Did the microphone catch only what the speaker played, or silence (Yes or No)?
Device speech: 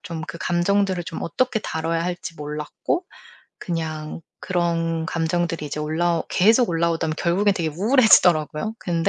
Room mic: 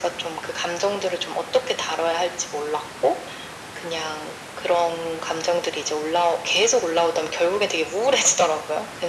Yes